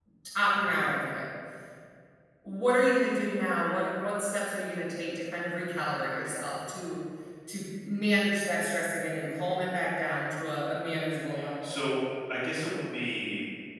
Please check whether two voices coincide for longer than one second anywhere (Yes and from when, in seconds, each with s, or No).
No